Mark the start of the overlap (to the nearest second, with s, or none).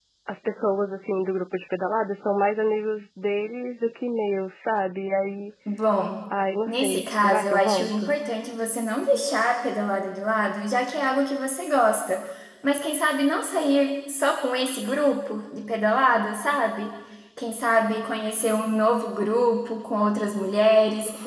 7 s